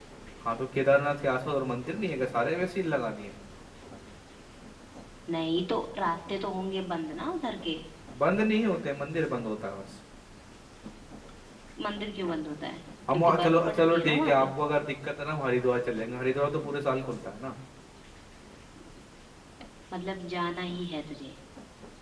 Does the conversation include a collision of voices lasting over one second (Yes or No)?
Yes